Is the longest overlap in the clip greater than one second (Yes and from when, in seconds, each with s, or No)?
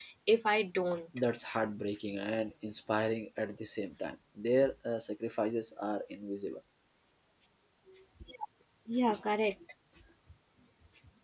No